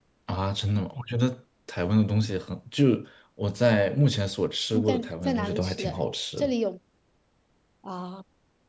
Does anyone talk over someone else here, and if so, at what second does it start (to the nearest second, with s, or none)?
5 s